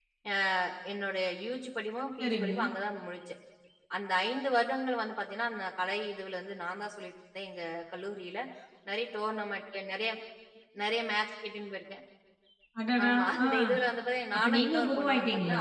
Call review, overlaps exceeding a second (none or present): present